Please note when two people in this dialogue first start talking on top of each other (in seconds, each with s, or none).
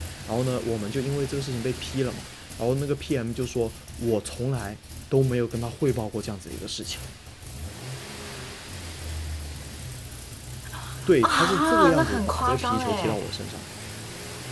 11.2 s